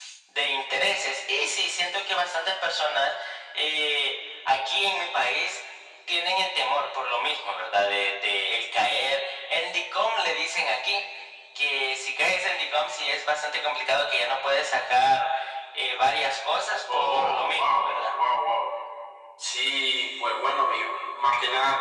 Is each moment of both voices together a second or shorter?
No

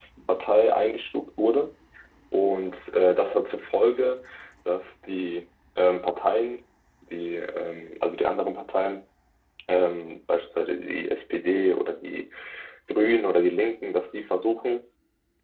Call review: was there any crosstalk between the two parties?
No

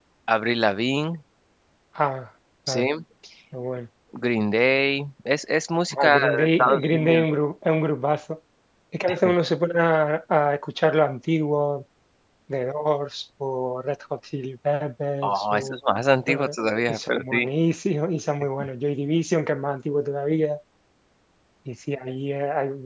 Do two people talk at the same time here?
Yes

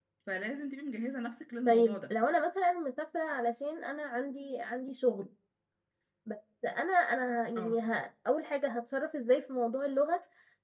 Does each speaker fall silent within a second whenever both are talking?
Yes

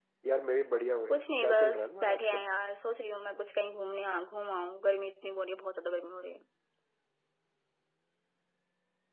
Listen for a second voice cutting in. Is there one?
Yes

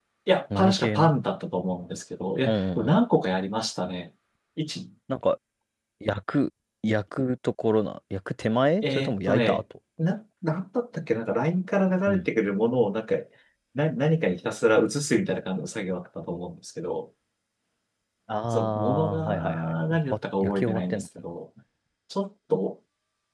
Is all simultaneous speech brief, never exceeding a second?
No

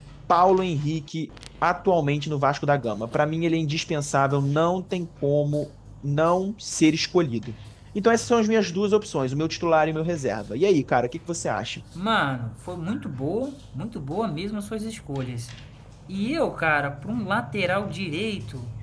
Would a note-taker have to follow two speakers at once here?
No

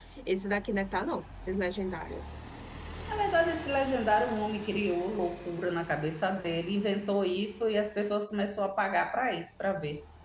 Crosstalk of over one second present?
No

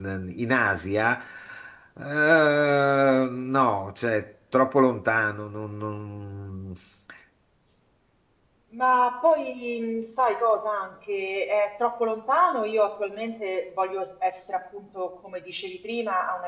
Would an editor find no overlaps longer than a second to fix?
Yes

